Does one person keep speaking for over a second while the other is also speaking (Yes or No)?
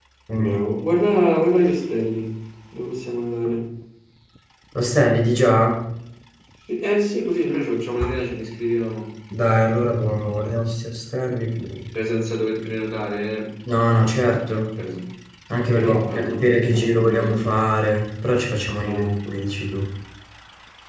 Yes